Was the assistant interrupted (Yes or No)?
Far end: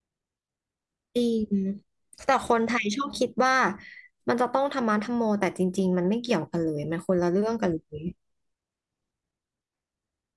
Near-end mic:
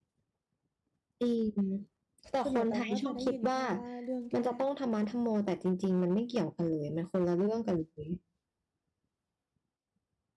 Yes